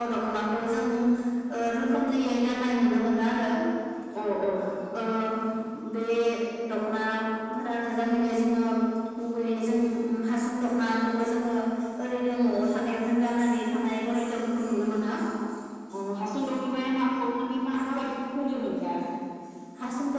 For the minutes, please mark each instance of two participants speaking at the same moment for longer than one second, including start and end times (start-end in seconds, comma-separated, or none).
none